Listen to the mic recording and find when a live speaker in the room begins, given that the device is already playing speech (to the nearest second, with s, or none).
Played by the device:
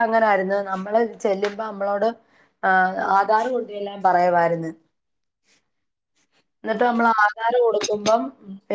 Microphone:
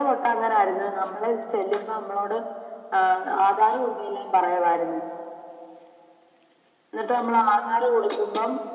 none